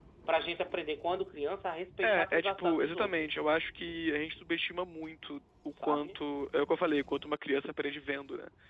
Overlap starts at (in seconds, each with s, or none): 2.0 s